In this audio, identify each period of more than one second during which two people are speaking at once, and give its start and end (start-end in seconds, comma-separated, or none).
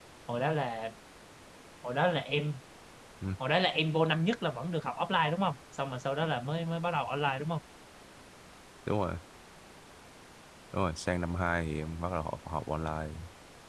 none